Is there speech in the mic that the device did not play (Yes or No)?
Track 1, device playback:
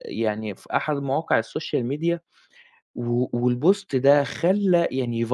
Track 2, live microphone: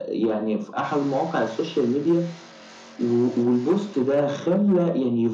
No